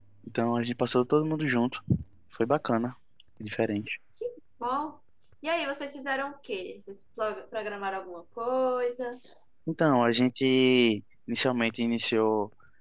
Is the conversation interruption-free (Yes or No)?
Yes